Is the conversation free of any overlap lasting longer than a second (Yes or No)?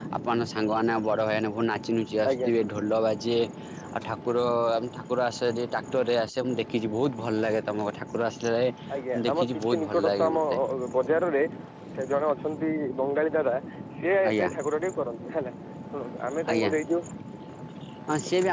No